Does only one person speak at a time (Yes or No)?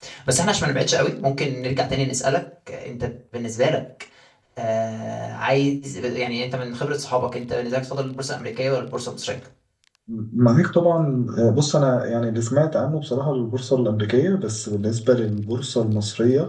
Yes